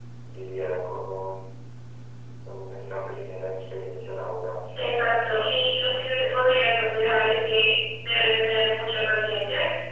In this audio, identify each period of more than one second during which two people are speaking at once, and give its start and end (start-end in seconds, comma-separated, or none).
none